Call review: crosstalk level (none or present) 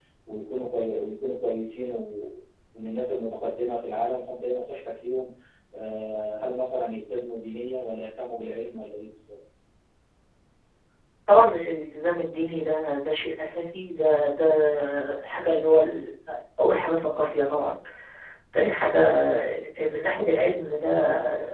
none